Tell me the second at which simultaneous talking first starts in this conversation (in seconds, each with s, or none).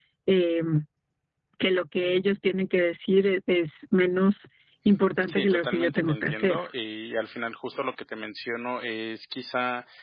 5.3 s